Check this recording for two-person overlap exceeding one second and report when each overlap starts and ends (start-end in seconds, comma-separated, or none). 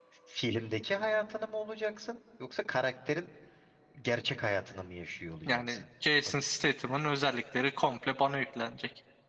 none